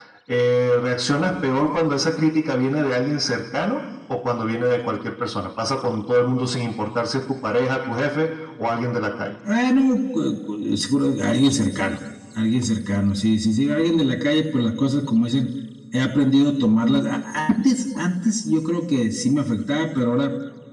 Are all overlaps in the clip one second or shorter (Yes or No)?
Yes